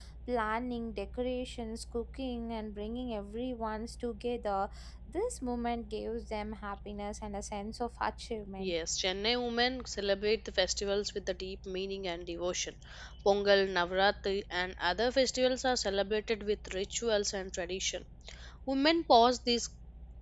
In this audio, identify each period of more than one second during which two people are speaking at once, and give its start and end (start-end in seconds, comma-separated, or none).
none